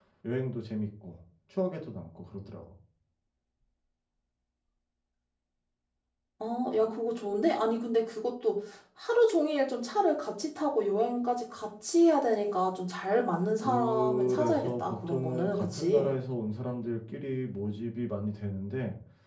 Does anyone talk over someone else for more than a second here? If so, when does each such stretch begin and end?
13.6-16.1

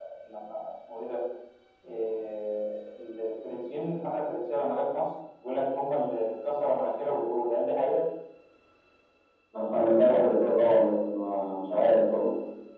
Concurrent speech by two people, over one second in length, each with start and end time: none

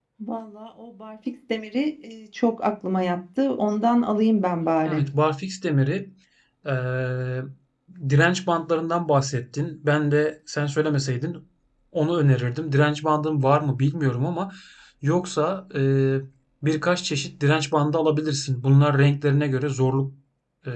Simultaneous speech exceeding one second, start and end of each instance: none

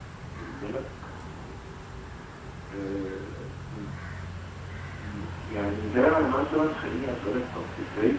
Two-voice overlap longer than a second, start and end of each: none

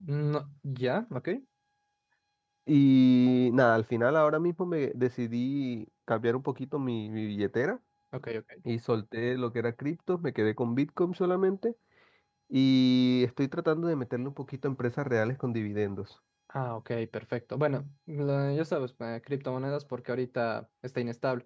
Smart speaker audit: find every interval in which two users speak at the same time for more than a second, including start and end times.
none

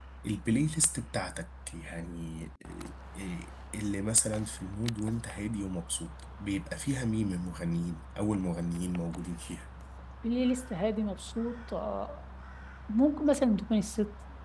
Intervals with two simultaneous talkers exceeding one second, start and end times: none

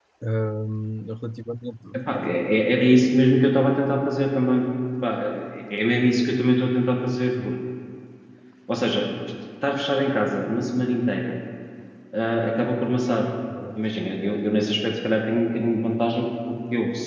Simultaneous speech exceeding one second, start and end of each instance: none

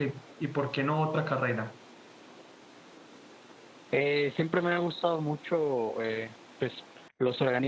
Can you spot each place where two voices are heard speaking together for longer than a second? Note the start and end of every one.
none

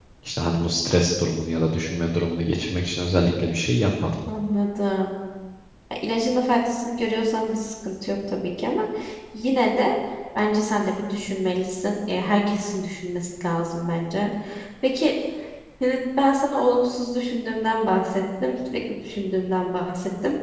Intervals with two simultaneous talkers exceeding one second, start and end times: none

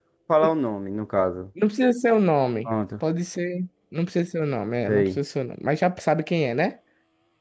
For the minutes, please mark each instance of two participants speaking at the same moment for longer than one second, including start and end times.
none

